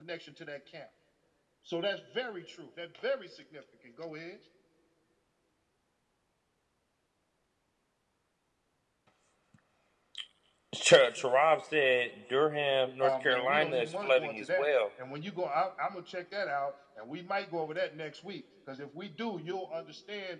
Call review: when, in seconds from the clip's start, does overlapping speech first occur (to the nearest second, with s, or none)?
13 s